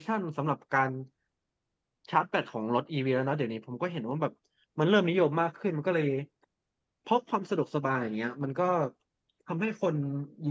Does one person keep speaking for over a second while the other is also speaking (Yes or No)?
No